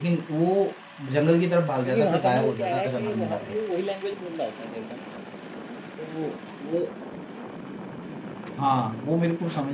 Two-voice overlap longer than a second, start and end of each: 1.8-3.6

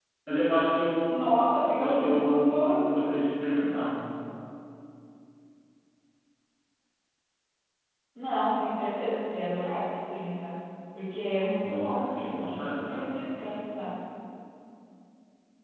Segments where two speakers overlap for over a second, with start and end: 1.8-3.1, 11.6-13.1

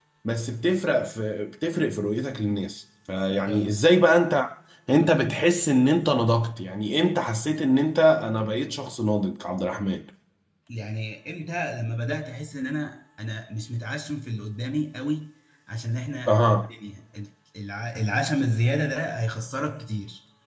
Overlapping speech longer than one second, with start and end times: none

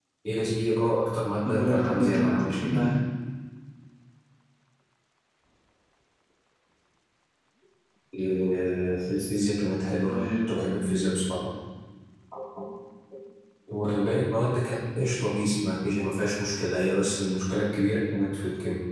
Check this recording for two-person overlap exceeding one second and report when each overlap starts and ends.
1.5-2.8

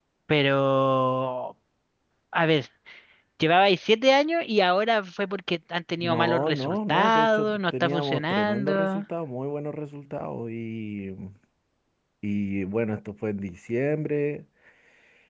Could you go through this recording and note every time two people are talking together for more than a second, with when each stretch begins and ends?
6.0-9.0

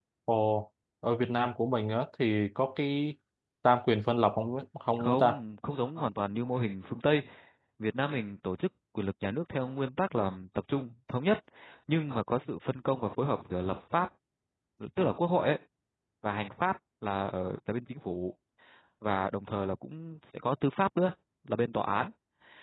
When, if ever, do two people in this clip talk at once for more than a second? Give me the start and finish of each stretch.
none

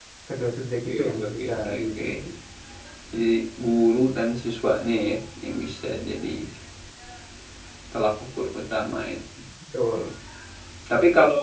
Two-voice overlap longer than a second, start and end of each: 0.8-2.1

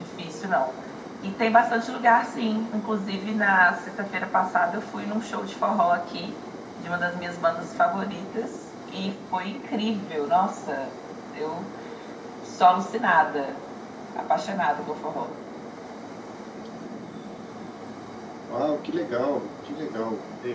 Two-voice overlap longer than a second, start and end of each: none

